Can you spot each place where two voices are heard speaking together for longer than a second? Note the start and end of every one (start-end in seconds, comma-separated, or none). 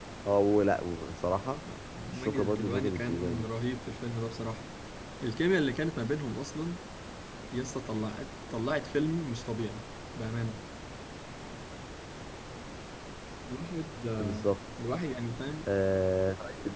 2.1-3.5